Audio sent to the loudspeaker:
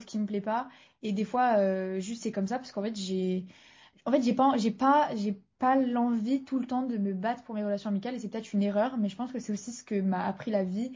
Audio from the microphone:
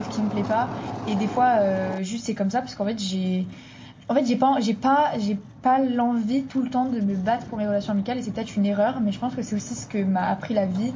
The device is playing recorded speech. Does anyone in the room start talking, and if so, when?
none

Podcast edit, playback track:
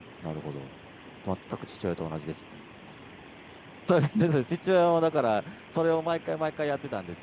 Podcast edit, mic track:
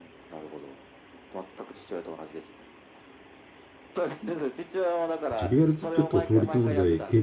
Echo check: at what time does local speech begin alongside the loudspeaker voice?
5.3 s

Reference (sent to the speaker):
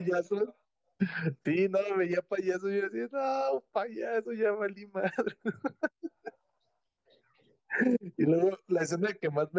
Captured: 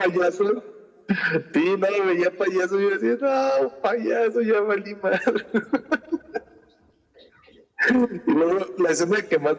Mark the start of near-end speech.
none

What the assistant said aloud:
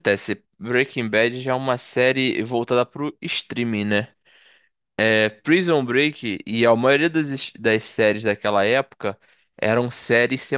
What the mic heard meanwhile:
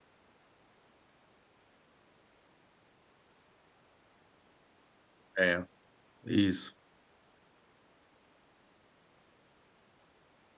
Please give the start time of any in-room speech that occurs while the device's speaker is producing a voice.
5.4 s

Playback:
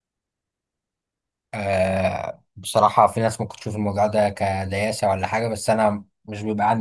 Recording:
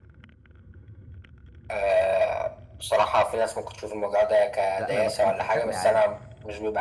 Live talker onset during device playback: 4.8 s

